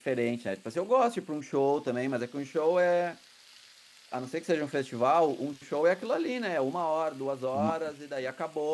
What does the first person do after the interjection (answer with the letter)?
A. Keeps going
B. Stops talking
A